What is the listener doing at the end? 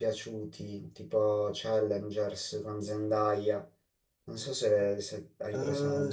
taking over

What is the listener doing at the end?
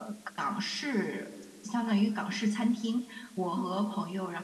listening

